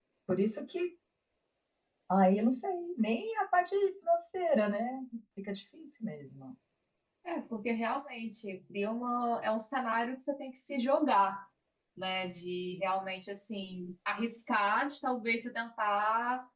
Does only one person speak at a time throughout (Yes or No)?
Yes